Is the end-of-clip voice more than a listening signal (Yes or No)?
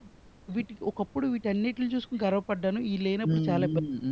Yes